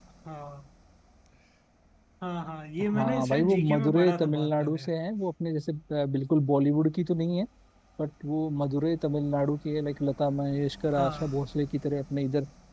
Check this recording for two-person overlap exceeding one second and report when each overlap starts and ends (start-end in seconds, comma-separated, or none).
2.9-4.9